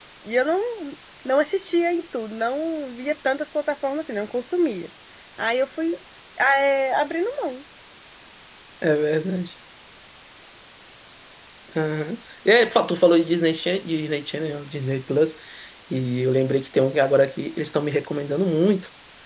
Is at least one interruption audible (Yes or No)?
No